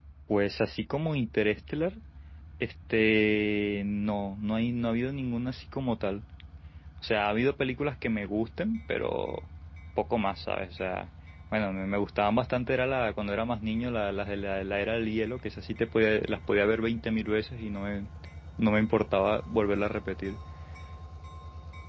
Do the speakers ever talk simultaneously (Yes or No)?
No